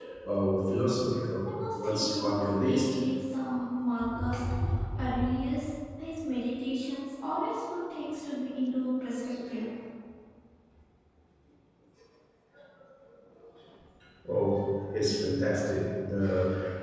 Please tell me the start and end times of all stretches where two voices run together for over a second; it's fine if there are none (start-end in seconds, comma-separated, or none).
1.5-3.0